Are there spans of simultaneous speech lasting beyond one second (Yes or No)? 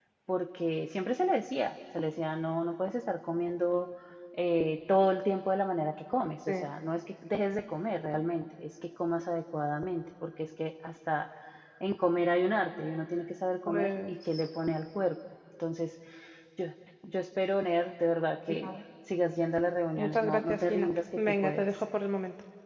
Yes